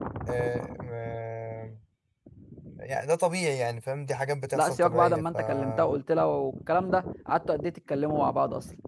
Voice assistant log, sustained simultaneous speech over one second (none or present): present